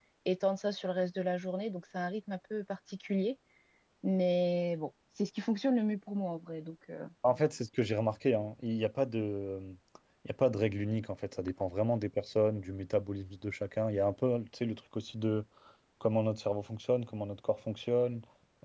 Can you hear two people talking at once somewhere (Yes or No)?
No